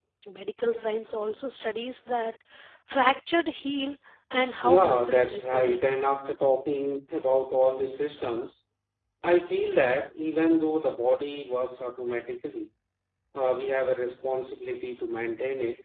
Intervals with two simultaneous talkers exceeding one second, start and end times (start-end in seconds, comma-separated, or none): 4.6-5.8